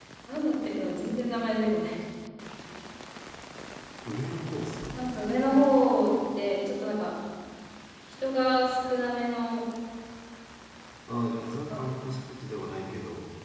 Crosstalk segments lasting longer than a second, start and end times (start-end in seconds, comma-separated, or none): none